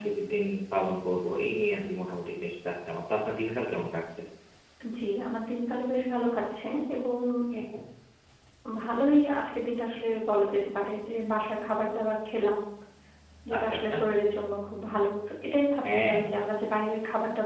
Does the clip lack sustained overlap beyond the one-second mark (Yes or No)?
Yes